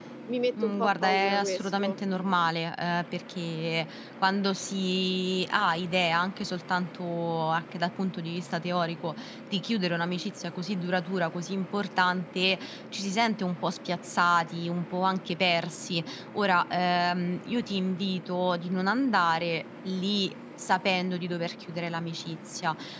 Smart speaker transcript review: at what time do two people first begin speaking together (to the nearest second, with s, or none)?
1 s